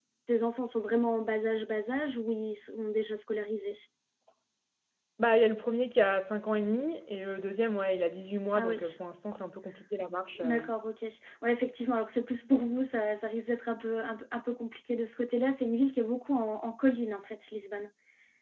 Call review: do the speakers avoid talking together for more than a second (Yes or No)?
Yes